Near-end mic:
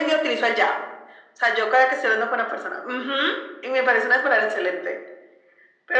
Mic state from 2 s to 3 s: echo only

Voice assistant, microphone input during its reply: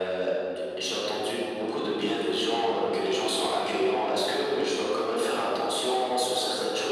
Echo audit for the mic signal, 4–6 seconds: echo only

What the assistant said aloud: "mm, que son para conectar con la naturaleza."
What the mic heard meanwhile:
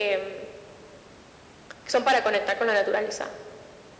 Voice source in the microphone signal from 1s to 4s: echo only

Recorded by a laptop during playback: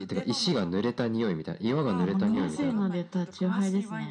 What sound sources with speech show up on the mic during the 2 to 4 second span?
both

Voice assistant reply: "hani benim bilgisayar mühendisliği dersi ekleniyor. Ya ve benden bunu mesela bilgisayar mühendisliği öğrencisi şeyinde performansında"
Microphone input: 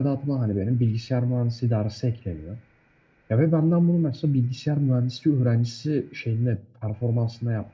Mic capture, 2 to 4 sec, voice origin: echo only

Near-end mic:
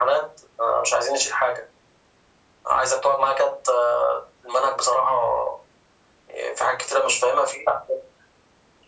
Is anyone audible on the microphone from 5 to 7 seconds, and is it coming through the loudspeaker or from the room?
echo only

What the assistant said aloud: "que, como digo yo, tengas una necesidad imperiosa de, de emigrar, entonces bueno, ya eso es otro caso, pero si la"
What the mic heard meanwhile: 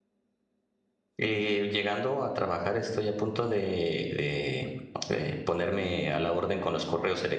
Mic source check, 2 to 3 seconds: user only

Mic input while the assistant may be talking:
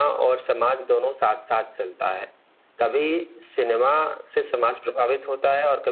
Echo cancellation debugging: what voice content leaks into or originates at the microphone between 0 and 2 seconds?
echo only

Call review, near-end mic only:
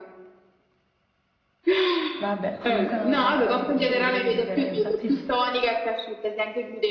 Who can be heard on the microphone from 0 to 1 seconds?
neither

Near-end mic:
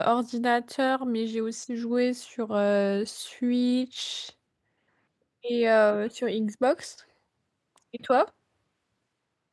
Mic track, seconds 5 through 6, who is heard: user only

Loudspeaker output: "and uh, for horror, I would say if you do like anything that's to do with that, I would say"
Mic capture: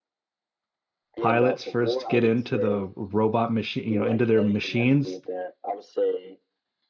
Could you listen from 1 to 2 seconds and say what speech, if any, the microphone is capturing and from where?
both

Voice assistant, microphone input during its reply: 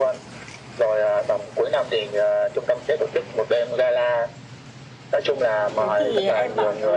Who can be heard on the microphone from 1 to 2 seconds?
echo only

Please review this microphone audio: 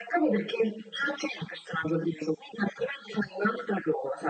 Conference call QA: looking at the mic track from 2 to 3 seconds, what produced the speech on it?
echo only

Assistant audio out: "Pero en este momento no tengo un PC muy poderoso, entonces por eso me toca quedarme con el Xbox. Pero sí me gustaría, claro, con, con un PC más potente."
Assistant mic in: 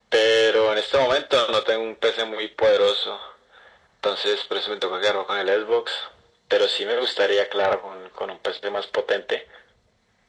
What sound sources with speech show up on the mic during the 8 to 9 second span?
echo only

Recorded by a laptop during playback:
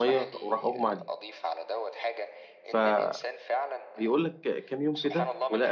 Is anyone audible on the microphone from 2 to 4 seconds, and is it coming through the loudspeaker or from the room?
both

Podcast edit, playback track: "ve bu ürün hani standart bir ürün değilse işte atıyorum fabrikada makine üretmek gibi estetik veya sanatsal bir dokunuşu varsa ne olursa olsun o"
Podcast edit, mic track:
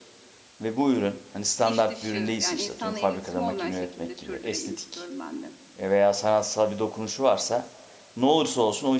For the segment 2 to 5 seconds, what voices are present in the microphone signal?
both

